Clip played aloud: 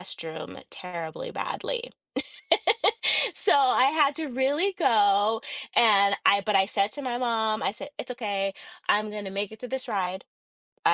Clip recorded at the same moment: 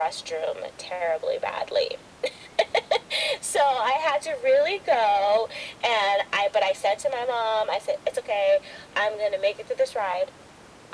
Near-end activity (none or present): none